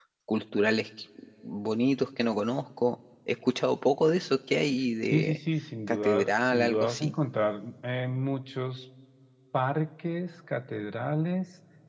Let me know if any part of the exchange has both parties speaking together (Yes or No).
Yes